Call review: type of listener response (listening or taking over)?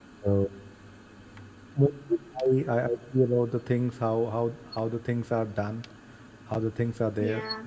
taking over